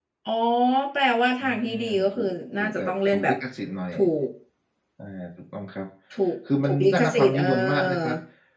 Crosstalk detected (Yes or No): Yes